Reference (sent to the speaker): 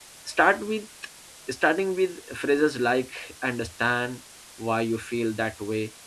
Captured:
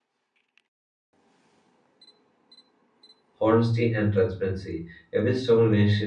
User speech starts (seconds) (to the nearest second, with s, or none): 3 s